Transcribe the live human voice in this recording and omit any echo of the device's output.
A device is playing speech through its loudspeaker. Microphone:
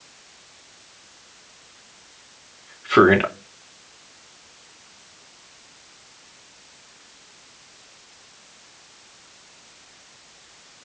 for an,

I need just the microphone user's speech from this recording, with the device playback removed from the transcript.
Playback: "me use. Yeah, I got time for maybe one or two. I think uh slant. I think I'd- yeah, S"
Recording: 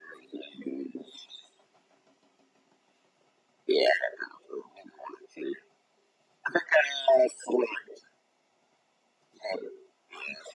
none

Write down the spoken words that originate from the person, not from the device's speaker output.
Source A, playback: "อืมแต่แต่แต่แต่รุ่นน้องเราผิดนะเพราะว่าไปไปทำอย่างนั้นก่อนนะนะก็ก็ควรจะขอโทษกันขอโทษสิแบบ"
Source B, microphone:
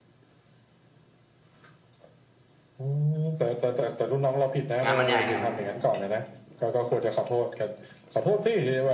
งานมันใหญ่งานมันใหญ่

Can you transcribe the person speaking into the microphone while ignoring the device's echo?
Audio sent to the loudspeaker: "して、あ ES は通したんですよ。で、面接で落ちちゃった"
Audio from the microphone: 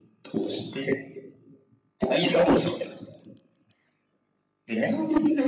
none

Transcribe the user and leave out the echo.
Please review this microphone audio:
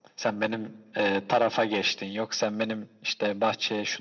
none

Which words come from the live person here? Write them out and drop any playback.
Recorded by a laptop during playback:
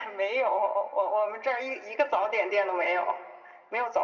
none

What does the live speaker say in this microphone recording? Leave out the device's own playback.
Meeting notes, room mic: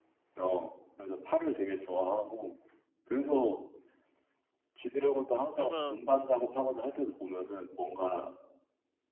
그러면

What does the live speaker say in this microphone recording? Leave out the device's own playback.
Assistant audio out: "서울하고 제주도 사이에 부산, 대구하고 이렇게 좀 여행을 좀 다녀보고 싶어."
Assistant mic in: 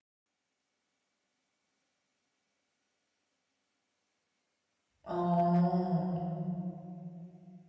어.

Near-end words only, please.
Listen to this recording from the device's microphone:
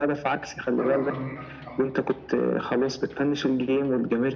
وانا بتمناه على الصراحه

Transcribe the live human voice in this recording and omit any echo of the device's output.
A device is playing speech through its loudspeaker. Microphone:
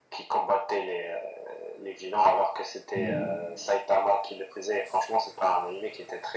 Oui.

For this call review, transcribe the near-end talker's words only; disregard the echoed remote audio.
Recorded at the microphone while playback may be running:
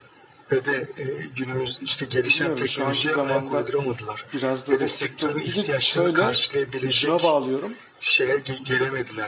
bilmiyorum şu anki zamanda biraz da dip- diplom. Bir de şöyle şuna bağlıyorum.

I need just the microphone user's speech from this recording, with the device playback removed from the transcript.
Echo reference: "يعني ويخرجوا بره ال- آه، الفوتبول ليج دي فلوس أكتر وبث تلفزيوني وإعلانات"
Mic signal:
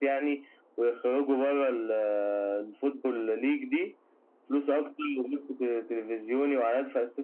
none

